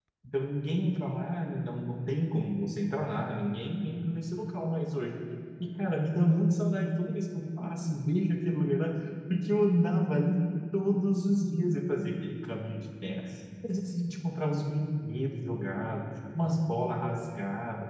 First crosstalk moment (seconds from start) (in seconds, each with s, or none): none